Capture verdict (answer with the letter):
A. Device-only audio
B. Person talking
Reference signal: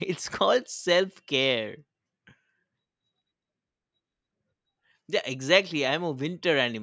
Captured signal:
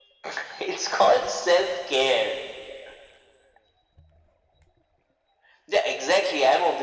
A